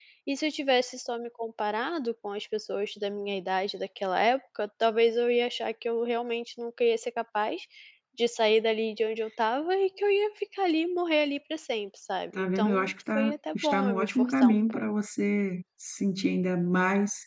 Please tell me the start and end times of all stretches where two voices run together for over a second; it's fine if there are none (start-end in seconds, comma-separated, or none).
12.3-14.8